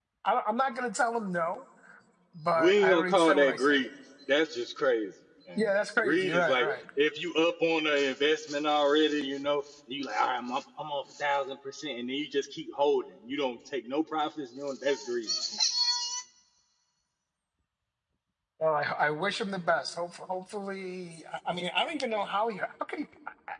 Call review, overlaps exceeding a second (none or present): present